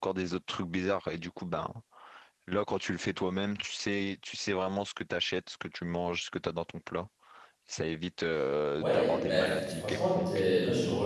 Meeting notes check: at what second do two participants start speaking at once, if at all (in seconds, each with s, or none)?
8.8 s